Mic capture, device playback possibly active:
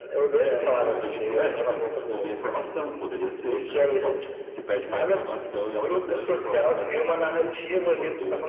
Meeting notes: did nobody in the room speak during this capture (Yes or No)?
Yes